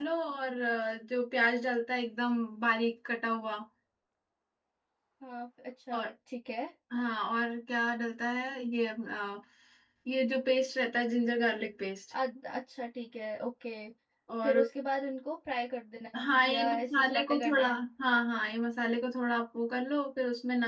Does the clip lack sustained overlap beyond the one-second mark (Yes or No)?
No